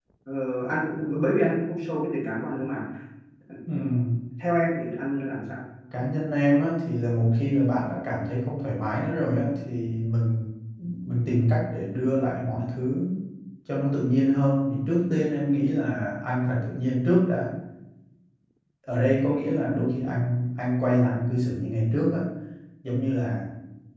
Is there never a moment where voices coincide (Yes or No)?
Yes